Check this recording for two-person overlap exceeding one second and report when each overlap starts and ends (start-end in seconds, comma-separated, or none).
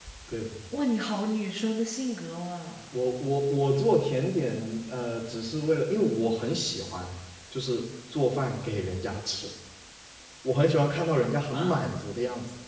none